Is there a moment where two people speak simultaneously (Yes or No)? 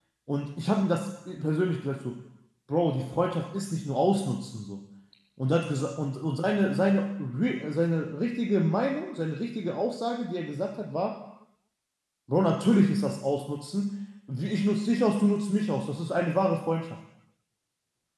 No